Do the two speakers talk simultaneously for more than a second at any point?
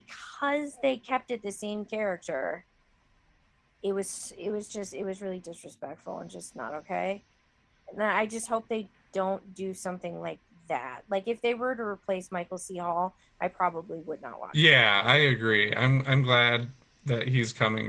No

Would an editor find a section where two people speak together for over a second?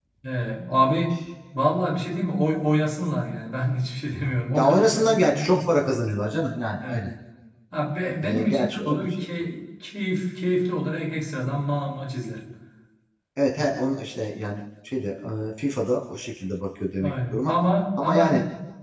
Yes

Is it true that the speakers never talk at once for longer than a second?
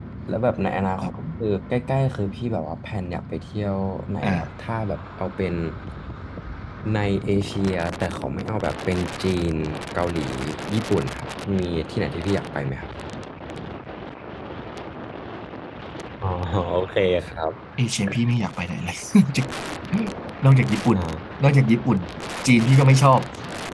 Yes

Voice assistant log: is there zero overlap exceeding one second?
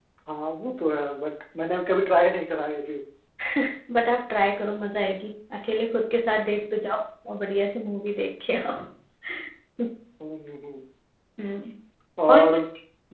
Yes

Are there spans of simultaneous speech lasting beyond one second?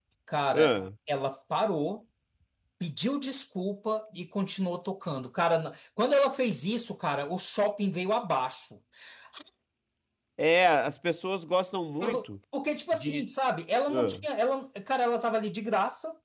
No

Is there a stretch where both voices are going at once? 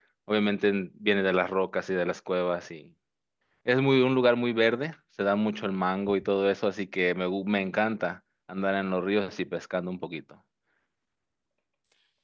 No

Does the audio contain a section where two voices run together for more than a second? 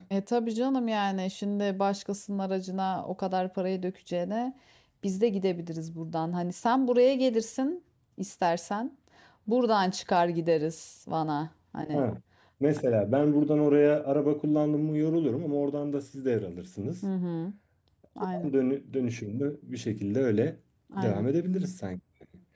No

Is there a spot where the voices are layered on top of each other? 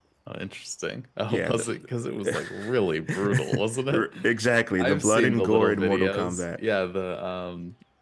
Yes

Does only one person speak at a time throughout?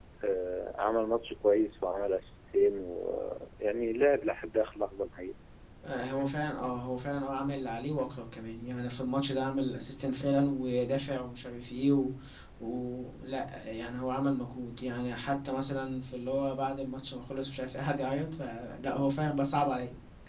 Yes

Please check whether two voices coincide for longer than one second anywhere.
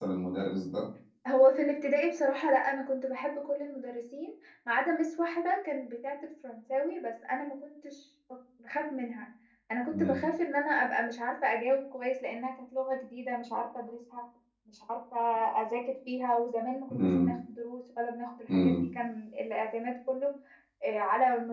No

